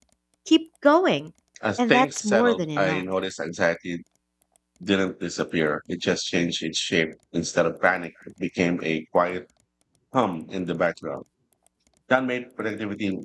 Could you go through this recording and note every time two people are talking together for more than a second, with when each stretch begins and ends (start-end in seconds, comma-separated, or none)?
1.8-3.0